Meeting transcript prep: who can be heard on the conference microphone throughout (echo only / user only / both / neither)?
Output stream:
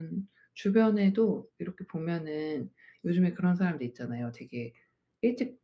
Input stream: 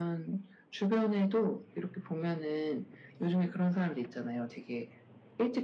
echo only